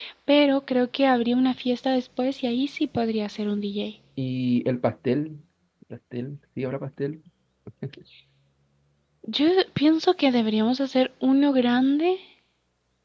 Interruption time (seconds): none

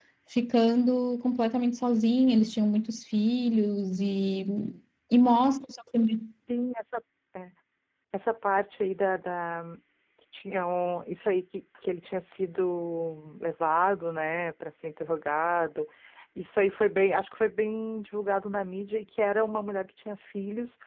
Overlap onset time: none

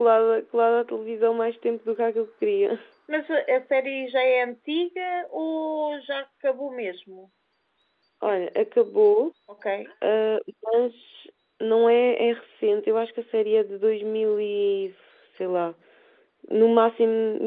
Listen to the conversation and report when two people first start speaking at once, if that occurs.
none

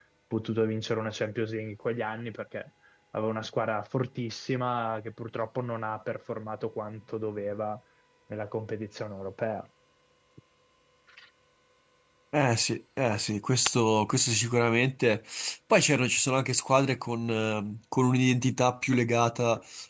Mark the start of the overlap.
none

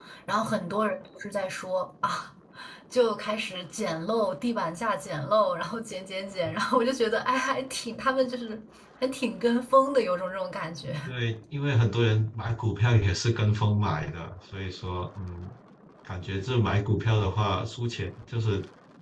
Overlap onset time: none

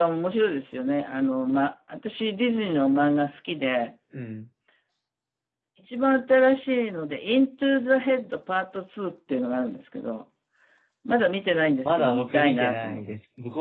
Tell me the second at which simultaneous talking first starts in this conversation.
11.8 s

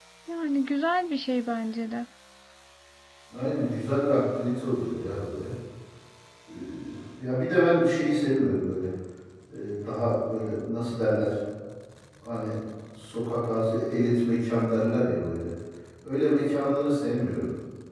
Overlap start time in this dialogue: none

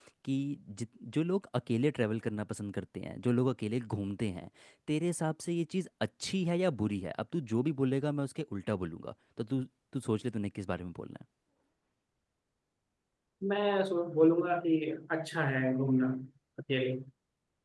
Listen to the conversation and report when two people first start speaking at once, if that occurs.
none

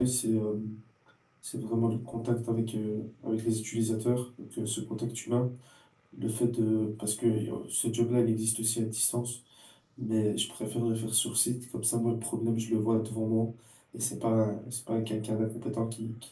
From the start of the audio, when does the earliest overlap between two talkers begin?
none

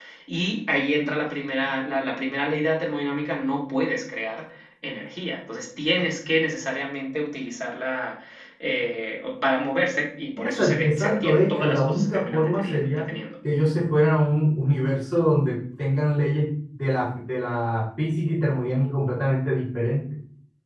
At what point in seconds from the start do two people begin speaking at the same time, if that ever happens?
10.4 s

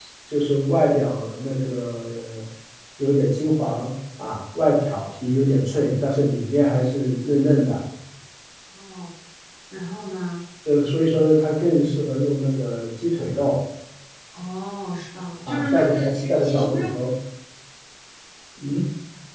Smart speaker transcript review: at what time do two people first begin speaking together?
15.5 s

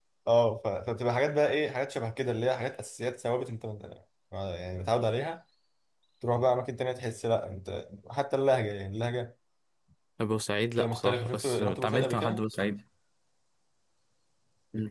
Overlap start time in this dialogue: 10.8 s

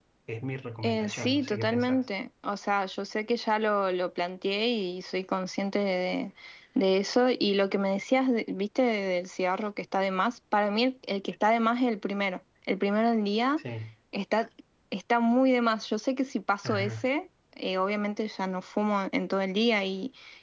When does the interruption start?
0.8 s

